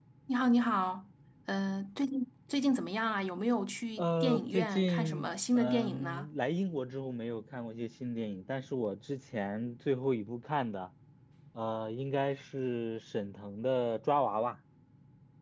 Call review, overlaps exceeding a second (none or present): present